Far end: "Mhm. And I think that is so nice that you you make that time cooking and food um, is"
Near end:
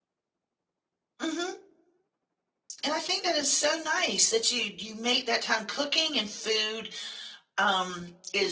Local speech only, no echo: none

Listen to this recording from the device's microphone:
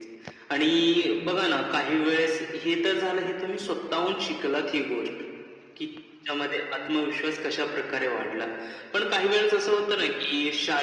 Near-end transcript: none

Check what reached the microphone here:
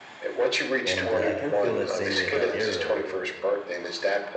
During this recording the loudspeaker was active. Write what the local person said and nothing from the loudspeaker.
and, uh, I kinda feel that same way about Arrow,

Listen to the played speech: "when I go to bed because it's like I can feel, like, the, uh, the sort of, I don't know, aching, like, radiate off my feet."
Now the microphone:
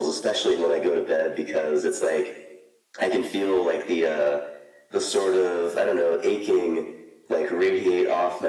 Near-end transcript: none

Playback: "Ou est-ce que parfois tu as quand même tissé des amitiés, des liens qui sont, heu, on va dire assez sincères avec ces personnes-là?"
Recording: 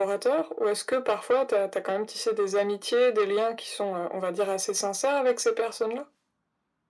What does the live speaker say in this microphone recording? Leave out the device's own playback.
none

